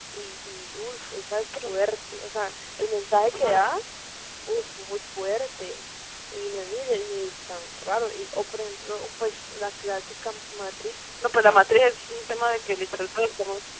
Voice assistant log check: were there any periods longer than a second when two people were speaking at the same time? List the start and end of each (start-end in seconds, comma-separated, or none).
none